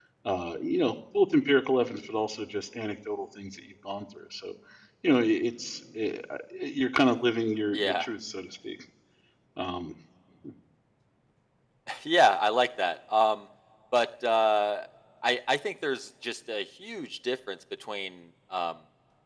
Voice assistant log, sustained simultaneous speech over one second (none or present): none